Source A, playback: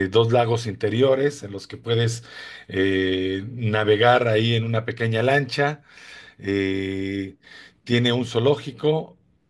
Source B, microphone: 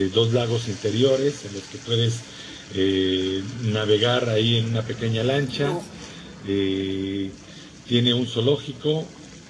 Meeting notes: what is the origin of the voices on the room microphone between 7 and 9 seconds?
echo only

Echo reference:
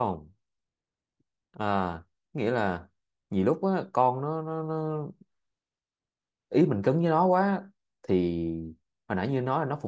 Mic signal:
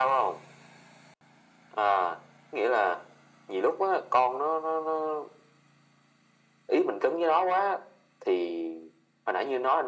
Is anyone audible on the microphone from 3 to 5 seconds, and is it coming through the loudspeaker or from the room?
echo only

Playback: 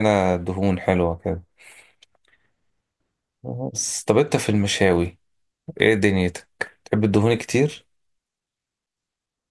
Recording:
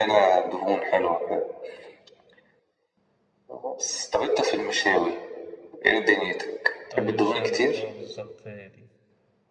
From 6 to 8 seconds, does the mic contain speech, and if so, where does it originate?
both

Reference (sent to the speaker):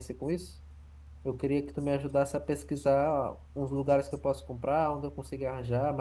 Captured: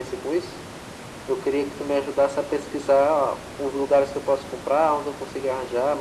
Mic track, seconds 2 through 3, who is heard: echo only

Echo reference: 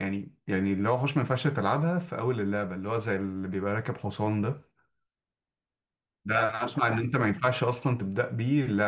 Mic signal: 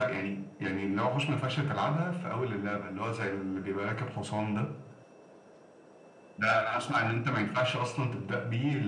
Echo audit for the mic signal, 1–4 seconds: echo only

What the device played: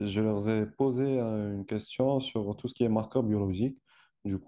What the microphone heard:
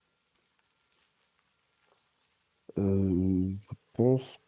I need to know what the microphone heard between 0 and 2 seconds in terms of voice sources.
neither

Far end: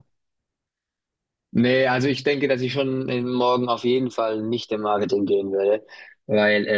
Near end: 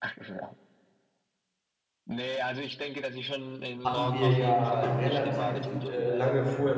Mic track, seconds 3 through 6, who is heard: both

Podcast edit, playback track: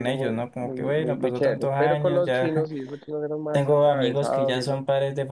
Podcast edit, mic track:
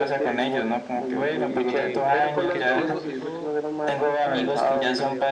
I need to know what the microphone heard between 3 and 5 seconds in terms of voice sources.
both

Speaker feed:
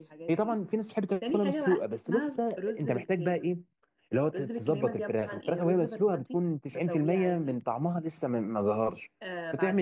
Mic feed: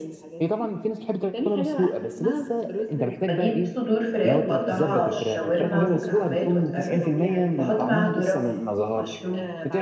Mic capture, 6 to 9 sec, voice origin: both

